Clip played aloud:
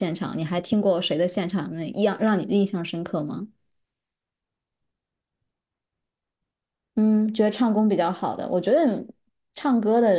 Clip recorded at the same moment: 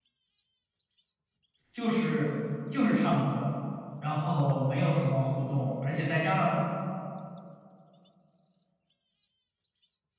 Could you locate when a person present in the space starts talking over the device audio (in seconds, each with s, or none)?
1.7 s